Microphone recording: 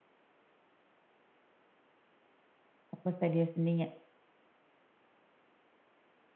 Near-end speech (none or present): present